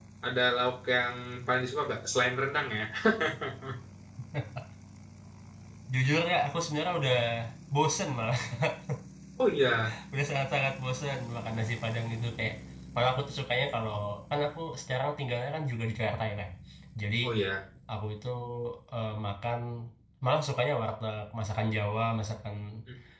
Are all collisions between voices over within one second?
Yes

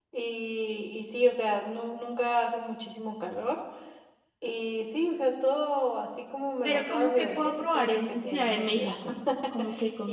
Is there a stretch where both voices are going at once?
Yes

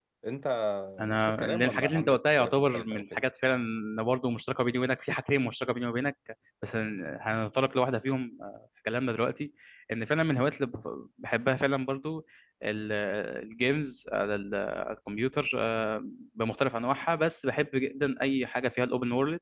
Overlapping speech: Yes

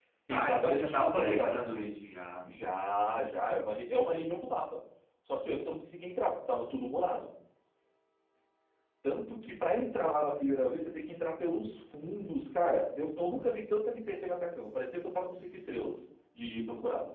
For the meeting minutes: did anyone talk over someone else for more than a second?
Yes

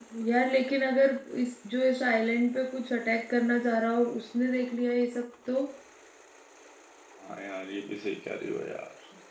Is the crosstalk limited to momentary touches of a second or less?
Yes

